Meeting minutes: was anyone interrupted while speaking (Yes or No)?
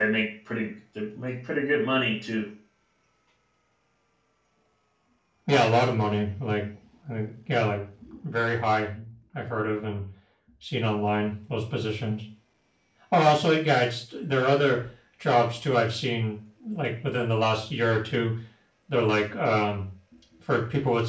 No